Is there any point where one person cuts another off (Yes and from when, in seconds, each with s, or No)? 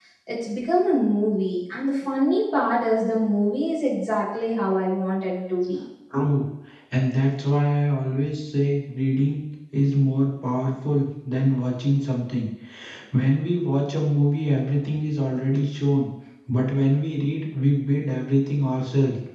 No